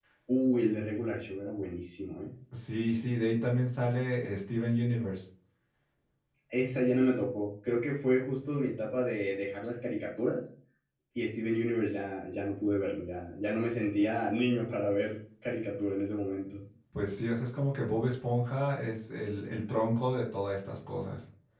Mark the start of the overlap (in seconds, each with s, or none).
none